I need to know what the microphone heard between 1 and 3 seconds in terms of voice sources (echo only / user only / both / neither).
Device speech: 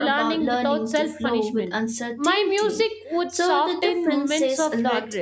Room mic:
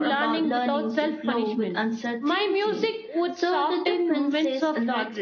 echo only